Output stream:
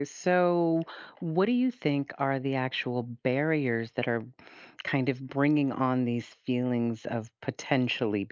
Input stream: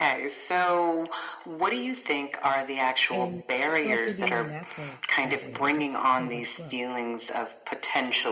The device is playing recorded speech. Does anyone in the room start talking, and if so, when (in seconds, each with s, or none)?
3.1 s